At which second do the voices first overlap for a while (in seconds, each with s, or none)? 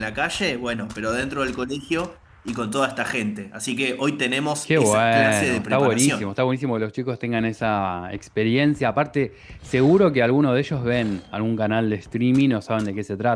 4.6 s